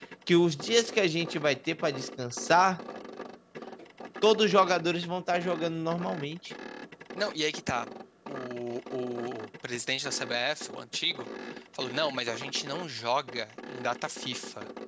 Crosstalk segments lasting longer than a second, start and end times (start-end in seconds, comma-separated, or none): none